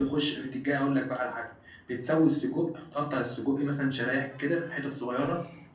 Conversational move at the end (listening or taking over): listening